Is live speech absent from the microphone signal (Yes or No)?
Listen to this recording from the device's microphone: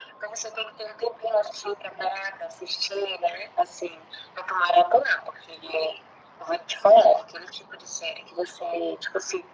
Yes